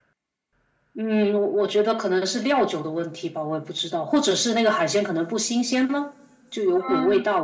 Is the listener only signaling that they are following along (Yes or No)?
No